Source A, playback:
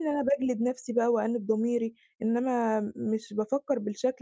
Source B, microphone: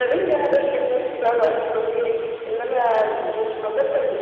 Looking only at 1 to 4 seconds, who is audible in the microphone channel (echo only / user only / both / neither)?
echo only